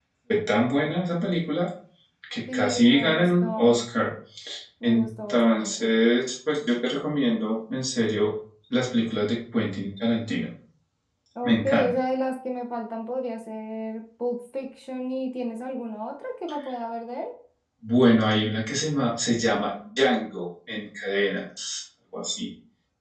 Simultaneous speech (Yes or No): Yes